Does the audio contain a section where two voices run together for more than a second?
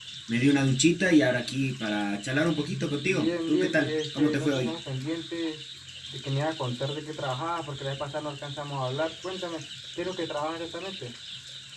Yes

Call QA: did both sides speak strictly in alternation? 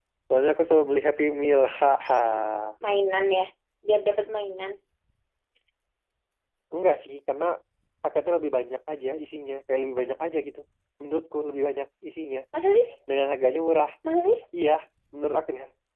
Yes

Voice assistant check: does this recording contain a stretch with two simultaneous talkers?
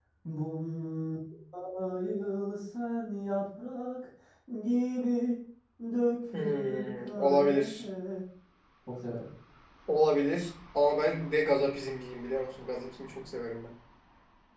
Yes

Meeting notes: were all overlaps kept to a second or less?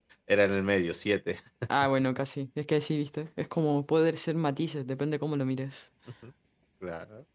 Yes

